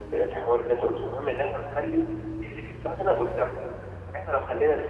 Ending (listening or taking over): listening